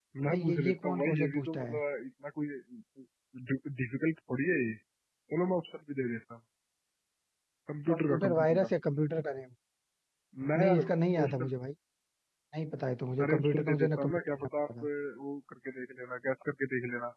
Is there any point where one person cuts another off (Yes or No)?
Yes